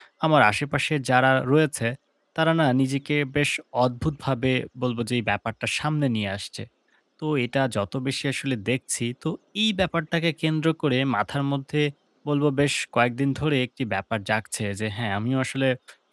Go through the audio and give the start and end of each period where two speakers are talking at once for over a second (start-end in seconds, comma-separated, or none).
none